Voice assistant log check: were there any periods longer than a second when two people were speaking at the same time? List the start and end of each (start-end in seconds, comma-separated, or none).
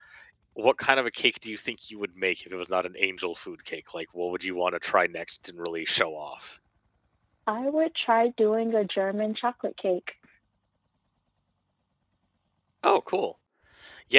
none